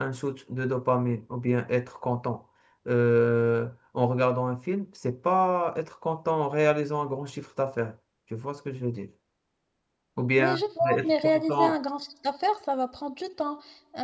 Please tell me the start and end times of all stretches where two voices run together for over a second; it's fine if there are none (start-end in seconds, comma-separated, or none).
10.4-11.8